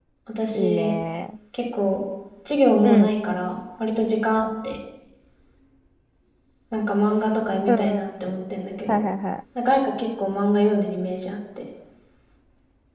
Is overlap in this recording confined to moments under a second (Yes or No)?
Yes